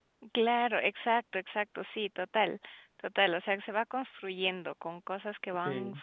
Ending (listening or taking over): listening